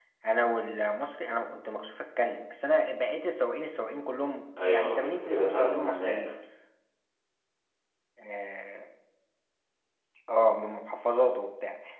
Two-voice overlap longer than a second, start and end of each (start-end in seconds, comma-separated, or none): 4.6-6.1